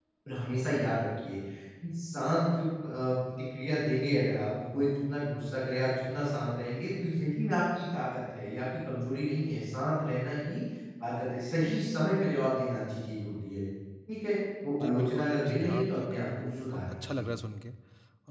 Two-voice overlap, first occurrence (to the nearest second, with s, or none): 15 s